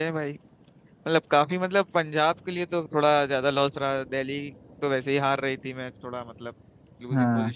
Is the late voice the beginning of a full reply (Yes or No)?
Yes